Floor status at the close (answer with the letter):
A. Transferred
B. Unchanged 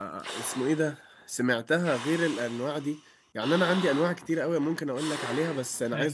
B